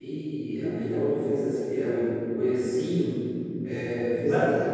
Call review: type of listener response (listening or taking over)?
taking over